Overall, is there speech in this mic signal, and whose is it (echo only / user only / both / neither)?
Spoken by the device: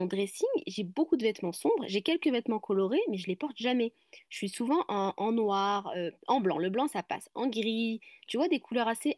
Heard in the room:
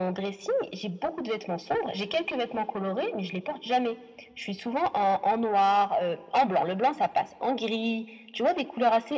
echo only